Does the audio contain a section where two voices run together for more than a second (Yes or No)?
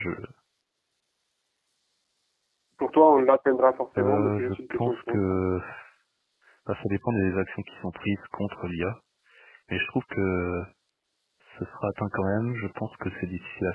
Yes